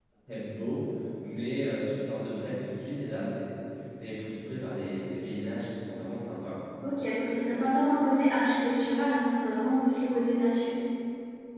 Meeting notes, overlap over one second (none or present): none